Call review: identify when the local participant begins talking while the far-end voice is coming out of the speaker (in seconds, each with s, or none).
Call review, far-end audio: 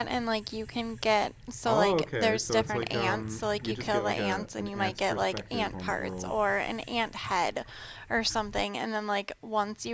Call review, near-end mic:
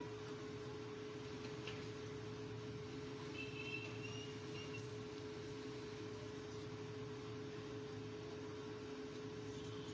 none